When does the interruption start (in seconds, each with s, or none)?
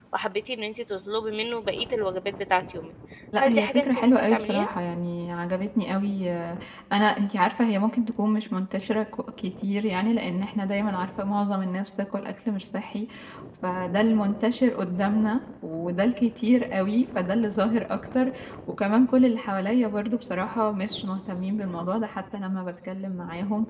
3.4 s